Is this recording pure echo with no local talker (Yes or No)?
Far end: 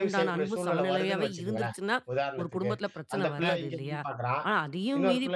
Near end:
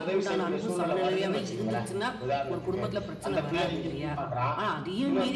Yes